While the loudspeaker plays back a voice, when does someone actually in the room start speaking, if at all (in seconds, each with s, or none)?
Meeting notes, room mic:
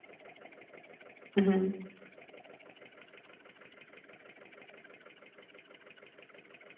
1.4 s